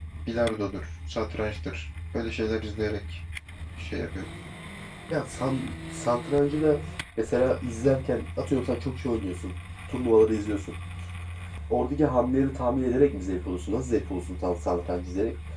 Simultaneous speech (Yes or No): No